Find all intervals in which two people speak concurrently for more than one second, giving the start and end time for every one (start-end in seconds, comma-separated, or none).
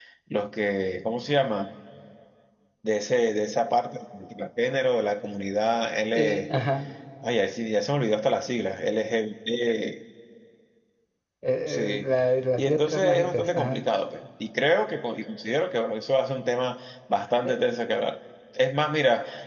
12.6-13.8